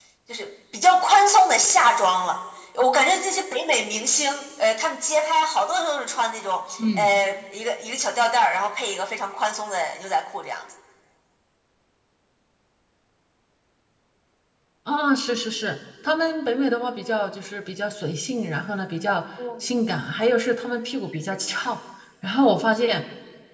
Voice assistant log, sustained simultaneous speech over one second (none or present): none